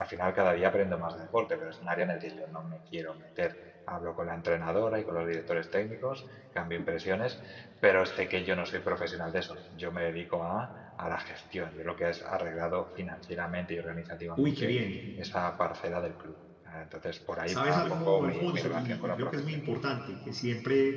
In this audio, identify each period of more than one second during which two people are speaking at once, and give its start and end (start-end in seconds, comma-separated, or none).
17.5-19.6